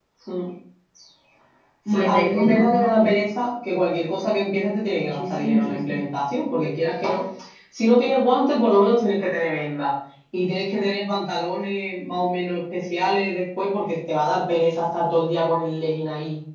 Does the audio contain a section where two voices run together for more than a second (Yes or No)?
Yes